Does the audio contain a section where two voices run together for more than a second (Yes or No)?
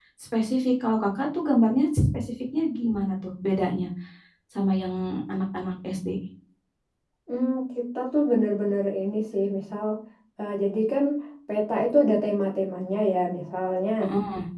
No